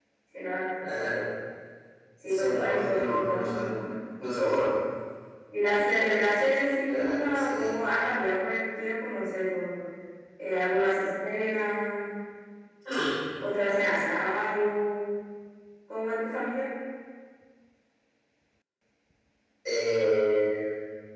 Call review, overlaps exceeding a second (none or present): present